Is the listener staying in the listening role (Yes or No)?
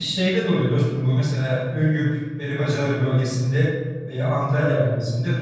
Yes